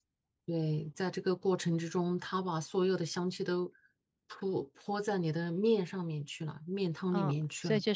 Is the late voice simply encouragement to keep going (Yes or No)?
No